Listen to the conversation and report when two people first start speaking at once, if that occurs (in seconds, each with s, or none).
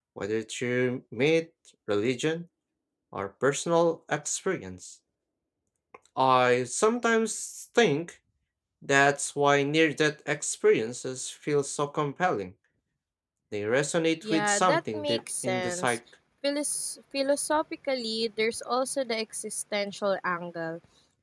14.2 s